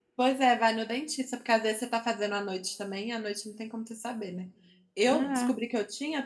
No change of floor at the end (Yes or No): Yes